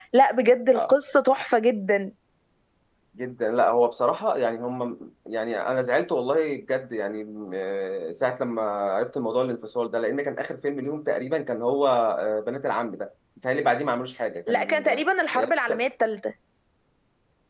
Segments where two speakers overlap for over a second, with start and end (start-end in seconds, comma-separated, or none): none